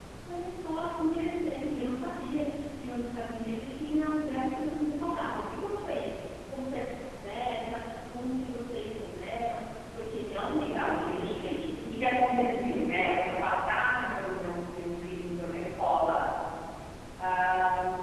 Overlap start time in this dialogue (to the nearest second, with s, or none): 11 s